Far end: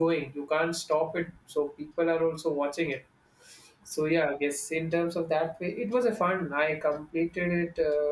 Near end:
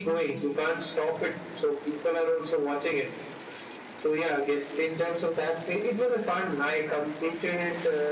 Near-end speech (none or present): none